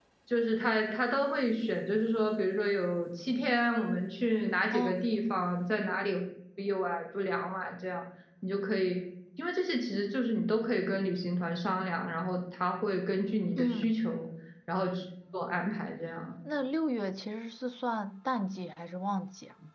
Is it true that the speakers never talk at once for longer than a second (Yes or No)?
Yes